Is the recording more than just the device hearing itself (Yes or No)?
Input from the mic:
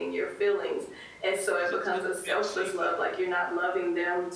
Yes